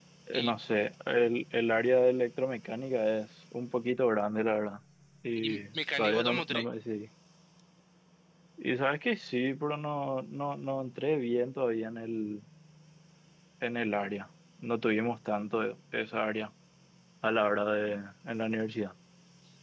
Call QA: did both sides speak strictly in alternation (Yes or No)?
No